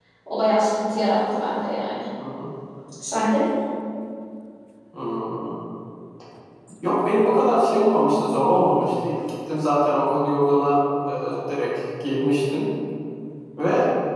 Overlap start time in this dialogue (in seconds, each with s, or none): none